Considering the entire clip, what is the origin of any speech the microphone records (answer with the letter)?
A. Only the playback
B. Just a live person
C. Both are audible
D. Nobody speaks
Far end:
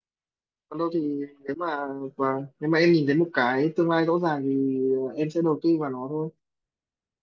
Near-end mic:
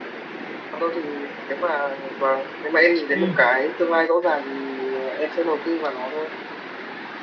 C